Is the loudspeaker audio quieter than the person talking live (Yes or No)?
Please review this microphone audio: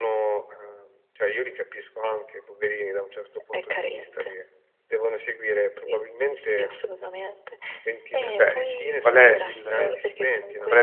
Yes